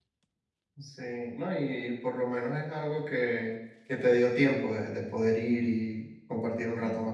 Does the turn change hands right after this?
Yes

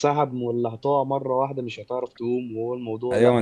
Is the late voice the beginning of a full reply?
Yes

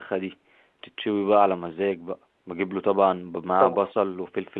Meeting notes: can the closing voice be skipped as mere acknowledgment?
Yes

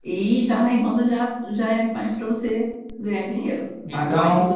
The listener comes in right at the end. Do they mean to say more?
No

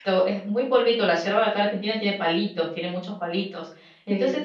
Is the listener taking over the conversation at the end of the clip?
No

